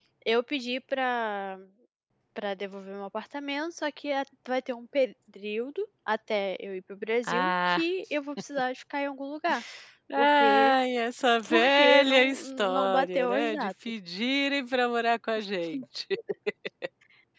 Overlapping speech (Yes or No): Yes